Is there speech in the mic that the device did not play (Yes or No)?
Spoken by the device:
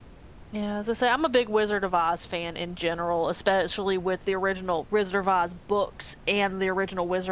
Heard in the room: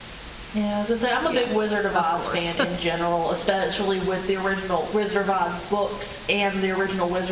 Yes